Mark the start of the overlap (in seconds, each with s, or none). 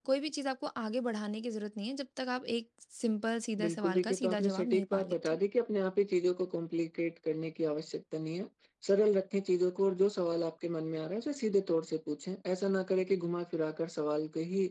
3.6 s